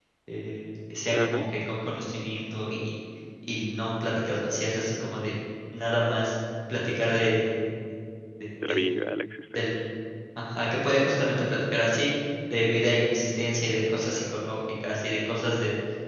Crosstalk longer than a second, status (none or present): none